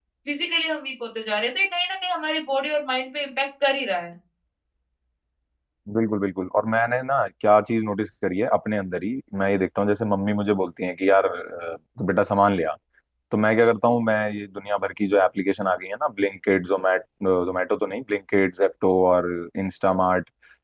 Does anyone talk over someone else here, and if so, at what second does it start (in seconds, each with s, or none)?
none